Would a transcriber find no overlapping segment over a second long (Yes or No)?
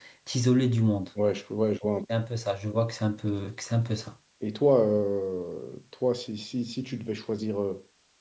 Yes